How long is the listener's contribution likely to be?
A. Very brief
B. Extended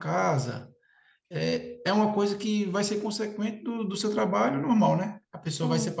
A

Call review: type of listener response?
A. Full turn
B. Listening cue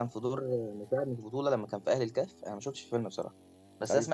B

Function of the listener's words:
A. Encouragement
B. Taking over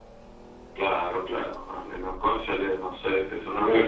B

